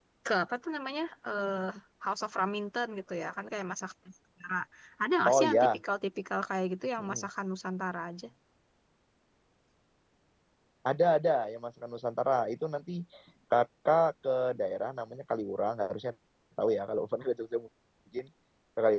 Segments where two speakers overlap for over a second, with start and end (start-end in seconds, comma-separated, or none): none